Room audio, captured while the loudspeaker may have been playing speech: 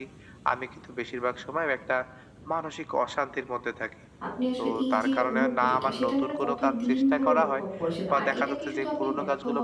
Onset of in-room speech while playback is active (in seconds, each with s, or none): 4.3 s